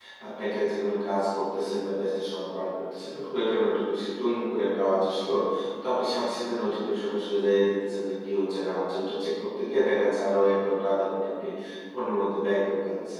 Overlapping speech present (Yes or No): No